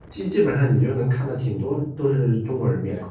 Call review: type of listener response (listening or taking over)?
taking over